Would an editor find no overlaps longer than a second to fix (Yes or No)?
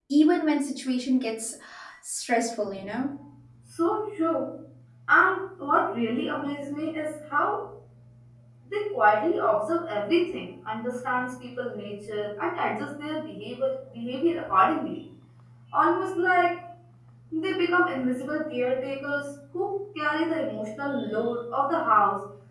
Yes